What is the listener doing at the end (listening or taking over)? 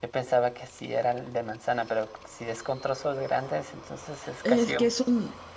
taking over